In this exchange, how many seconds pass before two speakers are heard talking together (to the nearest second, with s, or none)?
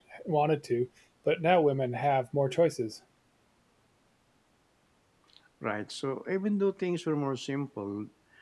none